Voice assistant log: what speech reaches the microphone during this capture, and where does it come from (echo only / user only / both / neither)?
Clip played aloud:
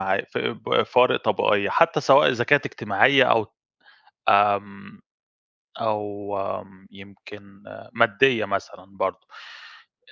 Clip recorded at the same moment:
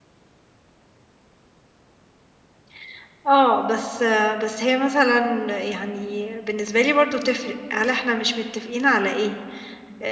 user only